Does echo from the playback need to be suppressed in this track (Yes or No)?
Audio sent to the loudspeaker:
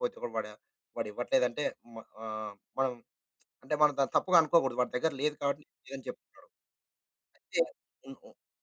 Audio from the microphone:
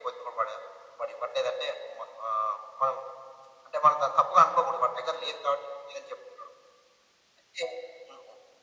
Yes